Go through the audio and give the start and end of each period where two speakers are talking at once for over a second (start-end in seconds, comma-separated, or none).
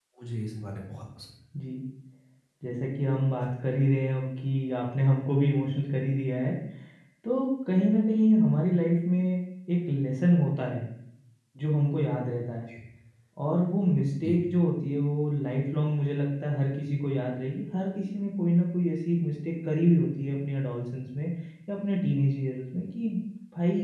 none